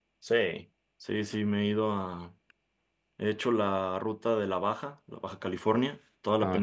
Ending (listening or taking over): listening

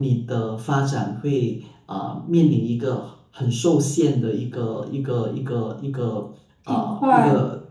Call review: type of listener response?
listening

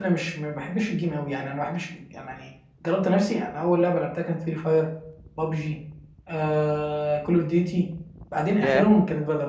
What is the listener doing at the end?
listening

